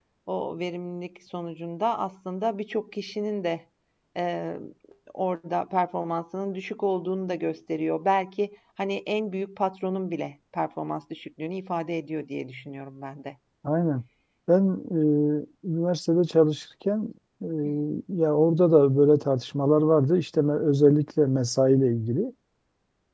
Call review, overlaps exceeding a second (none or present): none